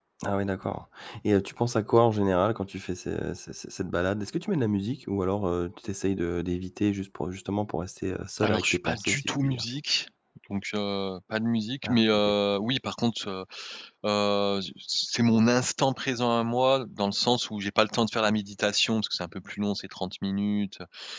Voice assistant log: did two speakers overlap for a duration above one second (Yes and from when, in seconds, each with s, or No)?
Yes, from 8.4 s